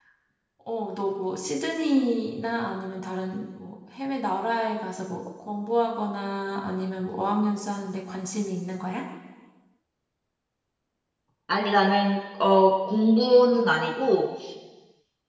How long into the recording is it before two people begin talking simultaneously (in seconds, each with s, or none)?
none